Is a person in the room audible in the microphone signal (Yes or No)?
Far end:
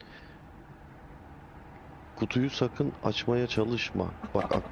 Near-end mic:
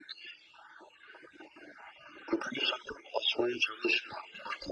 No